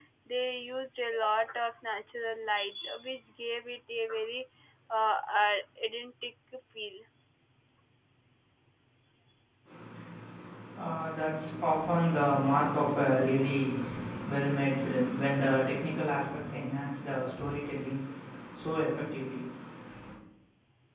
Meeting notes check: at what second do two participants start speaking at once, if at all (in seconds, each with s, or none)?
none